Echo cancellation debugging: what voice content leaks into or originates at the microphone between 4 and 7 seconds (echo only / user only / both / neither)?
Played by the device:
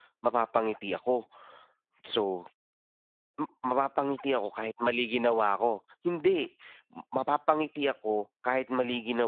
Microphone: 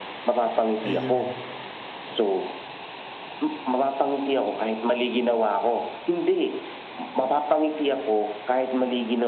echo only